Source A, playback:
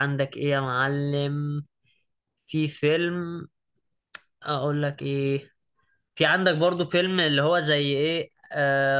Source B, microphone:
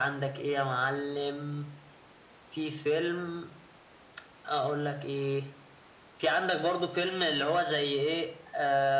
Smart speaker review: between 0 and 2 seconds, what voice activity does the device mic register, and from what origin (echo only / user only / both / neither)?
echo only